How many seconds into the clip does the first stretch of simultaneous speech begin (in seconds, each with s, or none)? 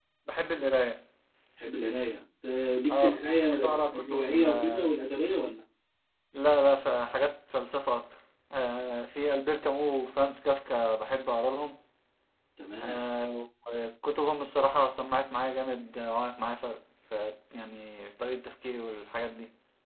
2.9 s